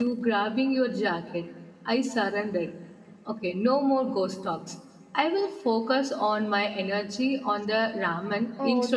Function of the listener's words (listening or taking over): taking over